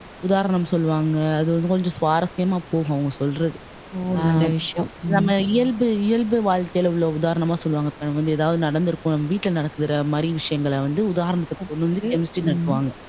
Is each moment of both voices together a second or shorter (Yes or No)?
Yes